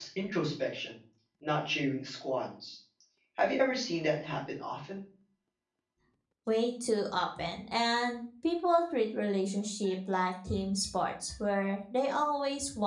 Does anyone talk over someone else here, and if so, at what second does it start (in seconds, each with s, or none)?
none